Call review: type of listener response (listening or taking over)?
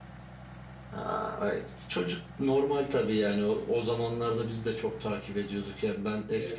listening